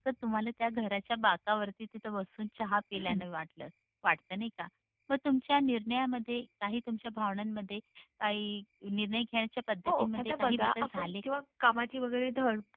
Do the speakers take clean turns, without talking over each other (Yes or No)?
No